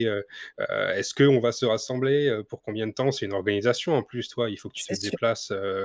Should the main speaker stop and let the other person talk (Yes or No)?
No